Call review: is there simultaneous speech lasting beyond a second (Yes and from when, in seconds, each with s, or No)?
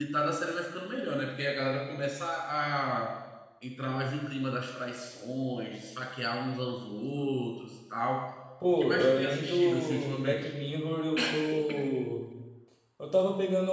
Yes, from 8.7 s